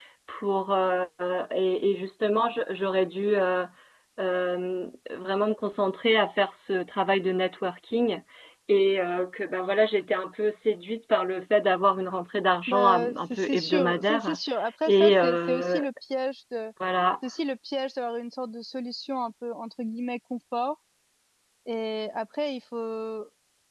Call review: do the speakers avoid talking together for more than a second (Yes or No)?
No